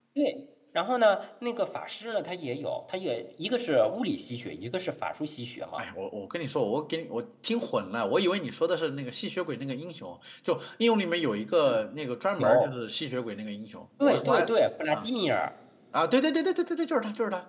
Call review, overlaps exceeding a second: none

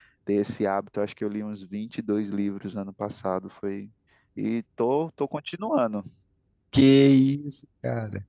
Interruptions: none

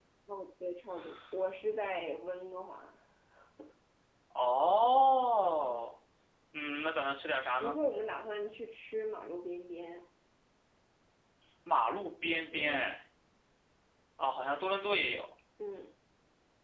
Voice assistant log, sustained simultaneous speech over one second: none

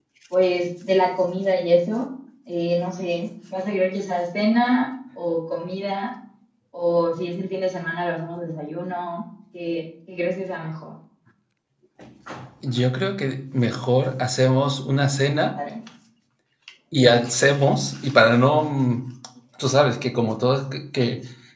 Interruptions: none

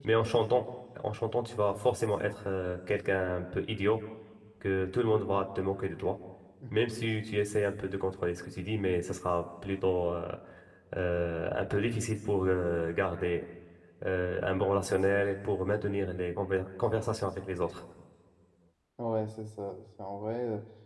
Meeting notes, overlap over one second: none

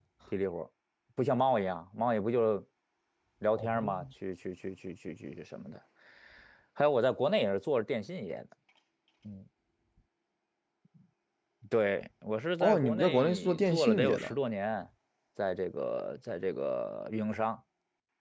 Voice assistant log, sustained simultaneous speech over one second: present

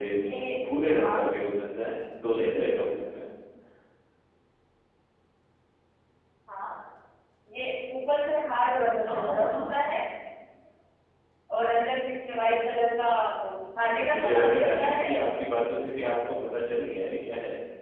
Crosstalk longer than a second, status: present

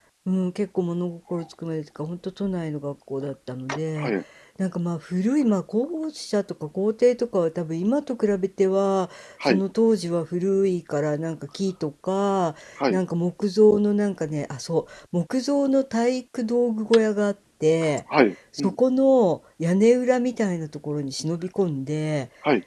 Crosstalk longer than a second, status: none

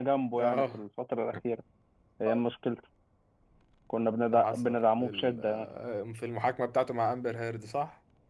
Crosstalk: present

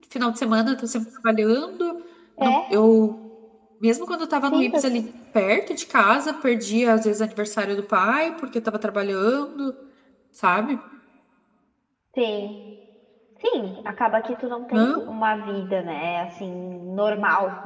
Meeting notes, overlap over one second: none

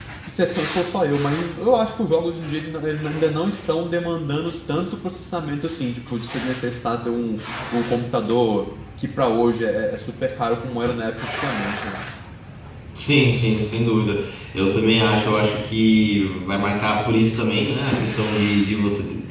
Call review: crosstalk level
none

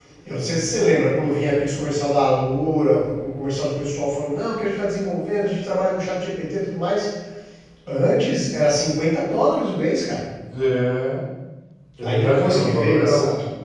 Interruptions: present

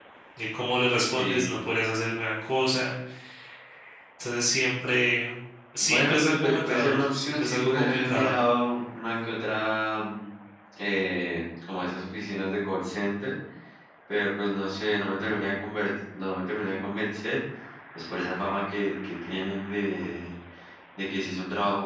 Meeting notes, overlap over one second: present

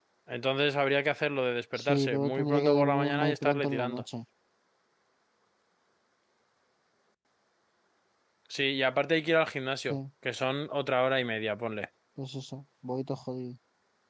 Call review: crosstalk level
present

